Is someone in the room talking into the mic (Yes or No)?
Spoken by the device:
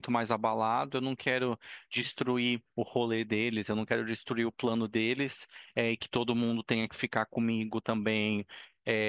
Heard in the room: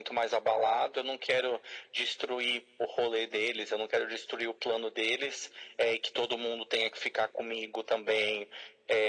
No